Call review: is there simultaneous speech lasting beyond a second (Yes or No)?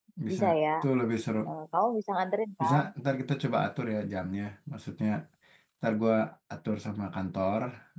No